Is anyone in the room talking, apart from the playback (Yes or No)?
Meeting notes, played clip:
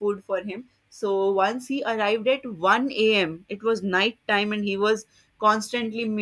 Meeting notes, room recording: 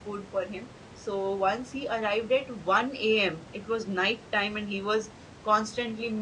No